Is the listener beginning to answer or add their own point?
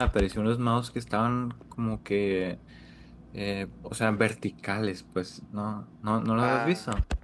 Yes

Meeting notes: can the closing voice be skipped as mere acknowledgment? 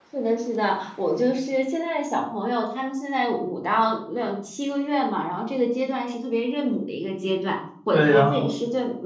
Yes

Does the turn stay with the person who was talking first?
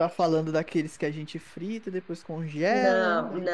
No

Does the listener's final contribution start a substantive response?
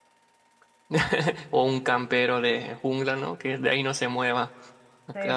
Yes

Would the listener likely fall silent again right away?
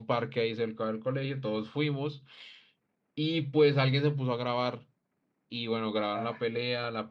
Yes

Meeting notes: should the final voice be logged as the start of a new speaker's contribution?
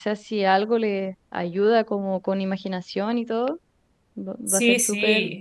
Yes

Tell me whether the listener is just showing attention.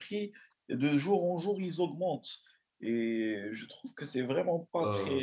Yes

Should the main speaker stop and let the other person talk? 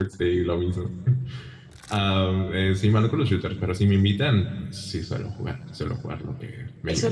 Yes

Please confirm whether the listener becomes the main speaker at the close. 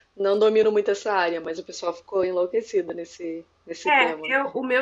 Yes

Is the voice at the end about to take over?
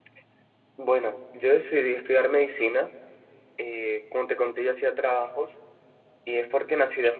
No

